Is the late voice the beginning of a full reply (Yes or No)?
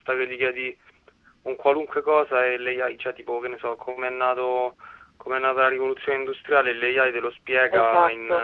No